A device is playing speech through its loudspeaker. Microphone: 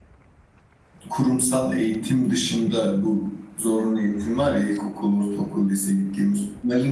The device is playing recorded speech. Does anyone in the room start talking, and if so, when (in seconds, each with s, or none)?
1.1 s